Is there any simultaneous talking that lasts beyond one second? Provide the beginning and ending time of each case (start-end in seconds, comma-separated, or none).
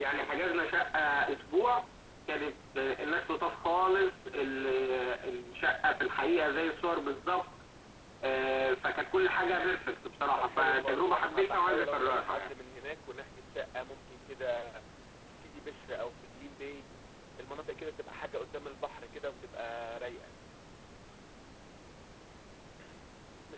10.4-12.5